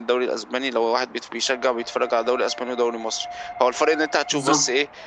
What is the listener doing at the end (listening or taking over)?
listening